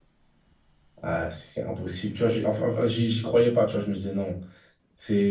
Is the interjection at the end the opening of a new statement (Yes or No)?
Yes